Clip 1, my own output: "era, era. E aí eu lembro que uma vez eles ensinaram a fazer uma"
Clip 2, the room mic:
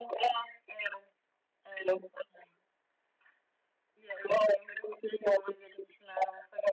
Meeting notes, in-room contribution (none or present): none